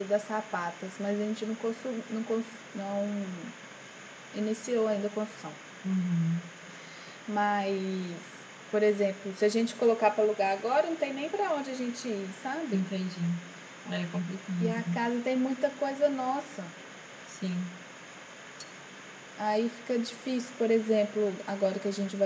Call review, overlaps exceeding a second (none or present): none